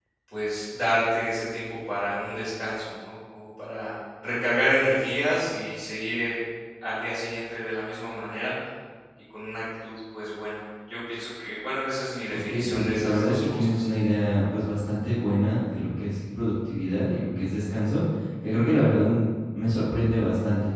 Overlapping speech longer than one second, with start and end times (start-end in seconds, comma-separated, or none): 12.3-13.8